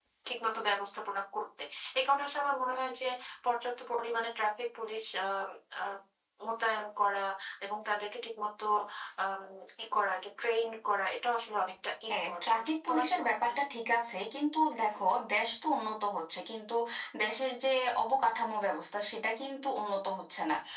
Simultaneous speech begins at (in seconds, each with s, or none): 12.1 s